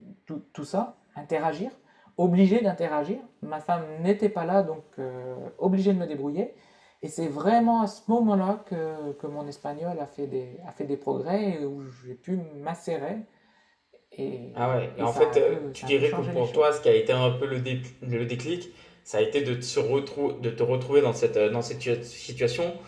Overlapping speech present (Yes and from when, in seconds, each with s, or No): Yes, from 14.6 s